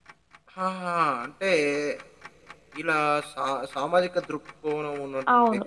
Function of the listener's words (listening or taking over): taking over